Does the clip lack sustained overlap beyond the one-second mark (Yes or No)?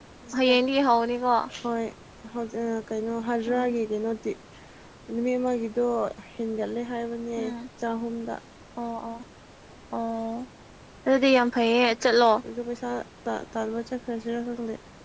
Yes